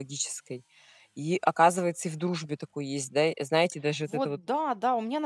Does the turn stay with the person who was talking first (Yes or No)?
No